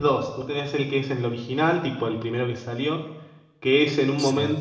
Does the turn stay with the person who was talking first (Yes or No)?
Yes